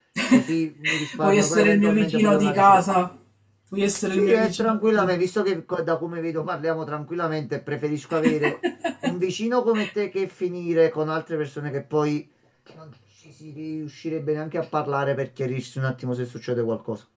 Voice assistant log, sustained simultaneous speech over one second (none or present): present